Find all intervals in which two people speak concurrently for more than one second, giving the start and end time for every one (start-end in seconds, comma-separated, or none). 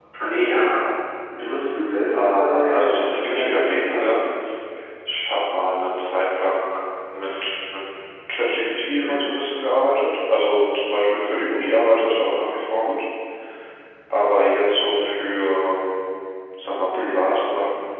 2.1-4.1